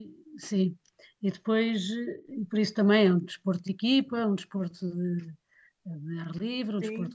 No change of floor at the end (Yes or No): No